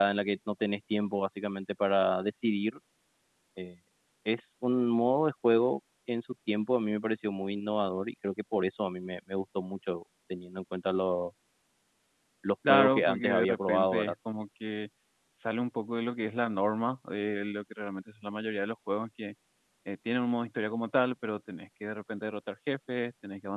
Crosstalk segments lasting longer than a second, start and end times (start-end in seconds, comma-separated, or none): 12.7-14.1